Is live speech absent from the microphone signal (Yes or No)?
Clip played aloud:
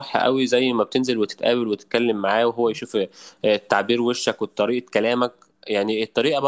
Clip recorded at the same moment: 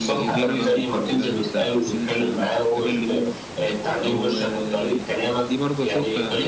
No